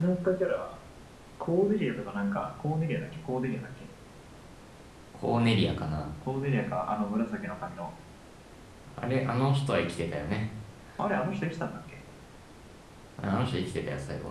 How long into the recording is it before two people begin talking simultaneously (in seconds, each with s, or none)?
none